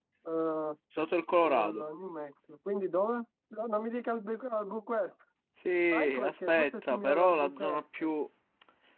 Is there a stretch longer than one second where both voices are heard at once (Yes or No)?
Yes